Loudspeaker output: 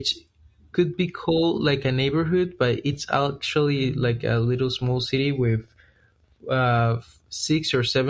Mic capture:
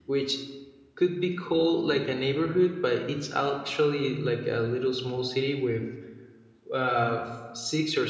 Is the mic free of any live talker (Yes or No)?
Yes